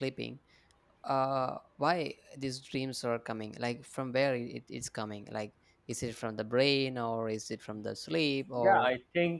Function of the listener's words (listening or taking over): taking over